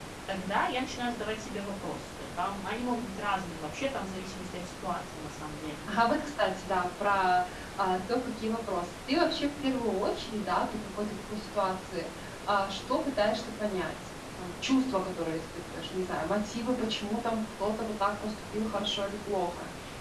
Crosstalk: none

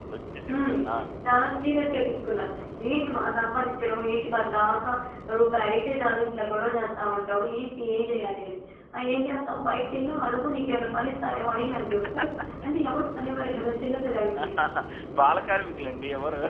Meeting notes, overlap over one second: none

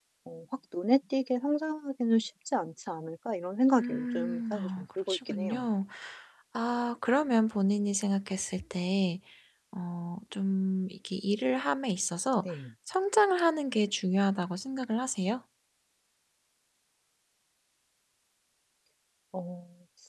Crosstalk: present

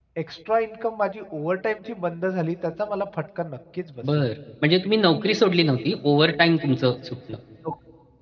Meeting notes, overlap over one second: none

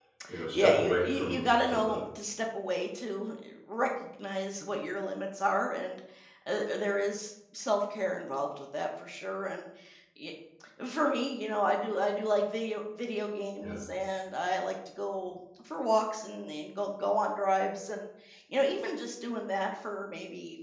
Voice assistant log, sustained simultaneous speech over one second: present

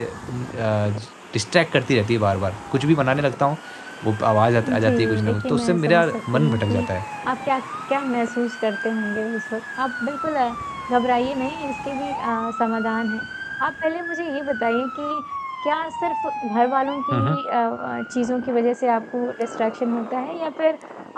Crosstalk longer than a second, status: present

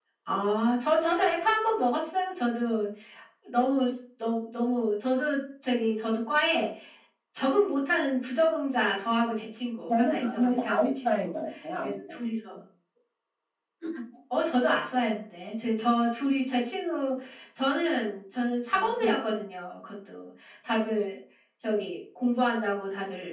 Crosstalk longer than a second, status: present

